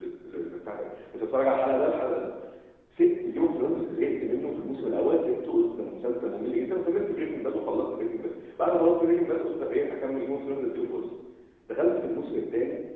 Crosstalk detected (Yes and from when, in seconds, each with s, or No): No